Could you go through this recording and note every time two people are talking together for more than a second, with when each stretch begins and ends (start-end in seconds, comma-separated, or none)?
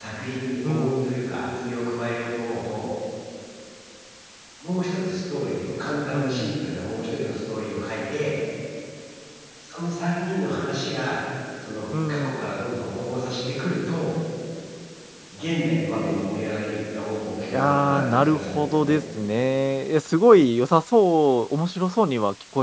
17.5-19.0